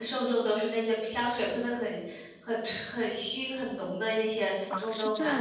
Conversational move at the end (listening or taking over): taking over